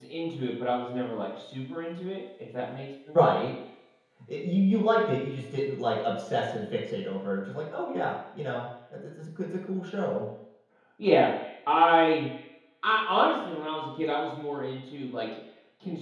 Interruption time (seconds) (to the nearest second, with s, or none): none